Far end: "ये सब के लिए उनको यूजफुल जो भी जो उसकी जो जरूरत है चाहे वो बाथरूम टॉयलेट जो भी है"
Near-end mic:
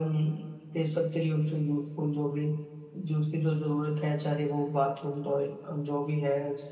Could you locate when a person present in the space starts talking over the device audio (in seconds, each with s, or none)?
none